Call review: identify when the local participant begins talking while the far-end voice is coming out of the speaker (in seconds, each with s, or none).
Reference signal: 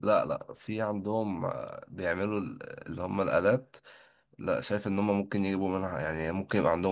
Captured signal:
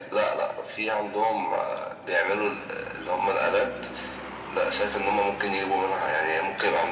none